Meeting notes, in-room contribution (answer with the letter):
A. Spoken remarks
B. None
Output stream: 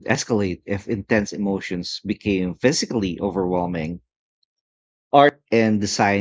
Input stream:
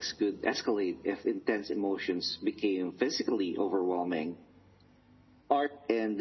B